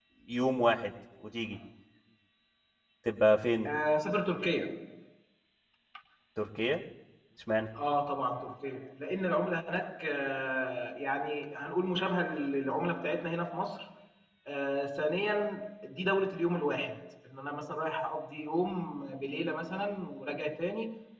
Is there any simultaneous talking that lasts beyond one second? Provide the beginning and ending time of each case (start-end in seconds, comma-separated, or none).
none